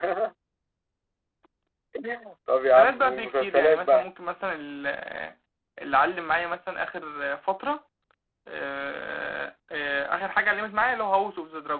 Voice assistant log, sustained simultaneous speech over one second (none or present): present